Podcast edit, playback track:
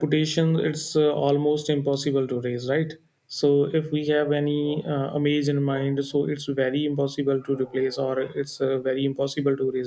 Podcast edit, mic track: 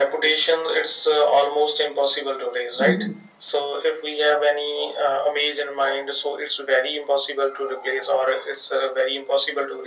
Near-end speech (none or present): present